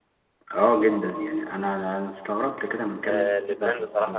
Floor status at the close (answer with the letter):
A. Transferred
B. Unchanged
A